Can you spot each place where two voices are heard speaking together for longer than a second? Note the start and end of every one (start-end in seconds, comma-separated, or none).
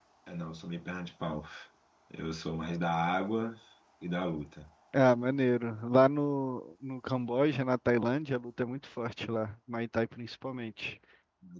none